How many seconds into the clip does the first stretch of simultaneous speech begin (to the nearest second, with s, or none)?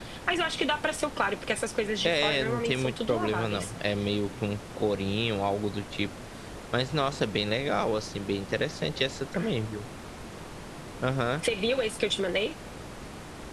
2 s